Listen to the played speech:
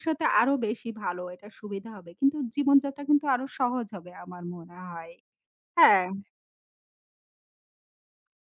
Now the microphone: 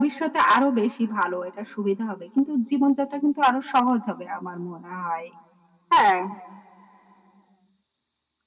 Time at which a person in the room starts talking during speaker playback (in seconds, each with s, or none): none